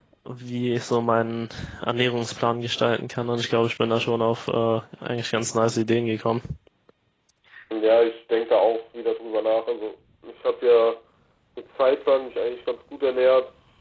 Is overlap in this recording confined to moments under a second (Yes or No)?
Yes